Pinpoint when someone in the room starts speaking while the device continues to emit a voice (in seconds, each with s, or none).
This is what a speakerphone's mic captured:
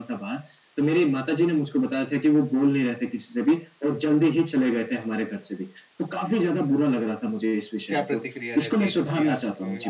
7.9 s